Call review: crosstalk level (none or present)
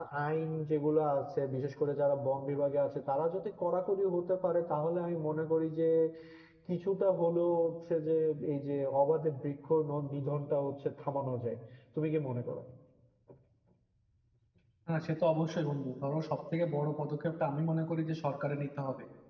none